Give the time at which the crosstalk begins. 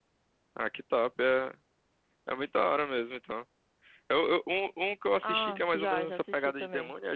5.2 s

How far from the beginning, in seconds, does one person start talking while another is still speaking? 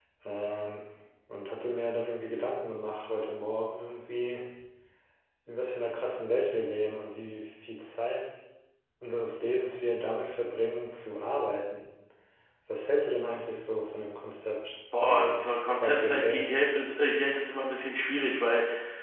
14.9 s

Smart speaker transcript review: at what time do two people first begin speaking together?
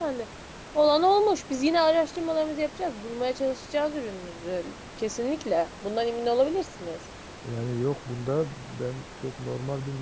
none

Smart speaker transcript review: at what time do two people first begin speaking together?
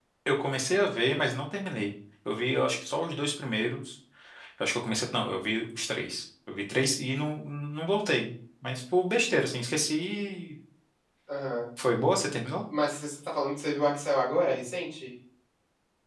none

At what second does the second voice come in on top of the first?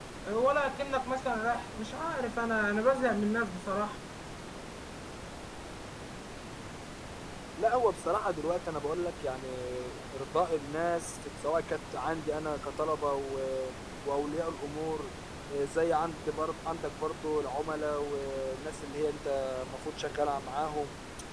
none

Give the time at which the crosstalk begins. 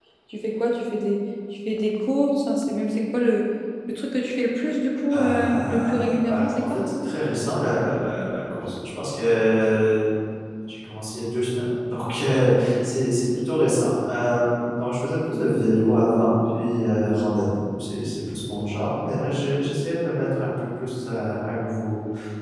5.2 s

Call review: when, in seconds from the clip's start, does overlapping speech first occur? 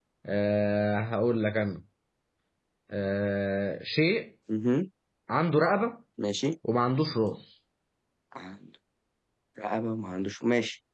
none

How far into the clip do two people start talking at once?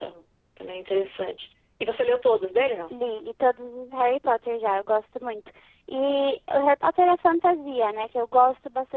none

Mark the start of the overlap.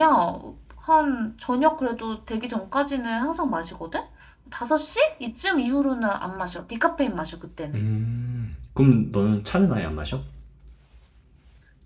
none

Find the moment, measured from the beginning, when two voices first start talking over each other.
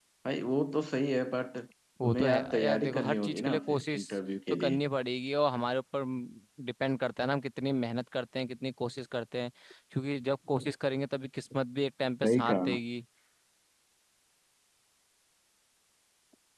2.0 s

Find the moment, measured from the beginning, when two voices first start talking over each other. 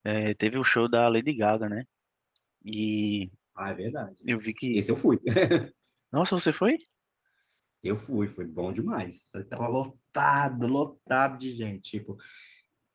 none

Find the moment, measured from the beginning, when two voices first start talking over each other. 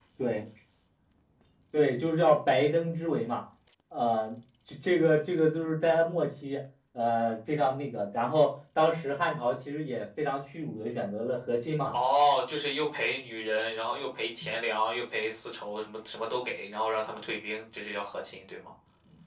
none

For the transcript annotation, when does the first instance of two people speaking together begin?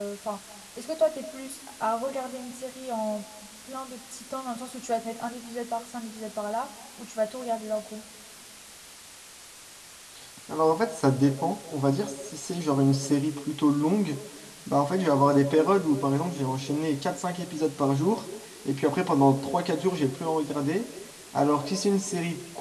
none

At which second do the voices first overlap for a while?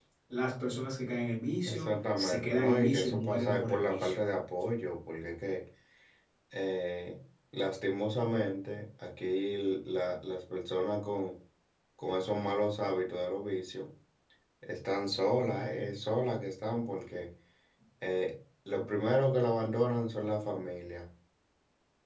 1.7 s

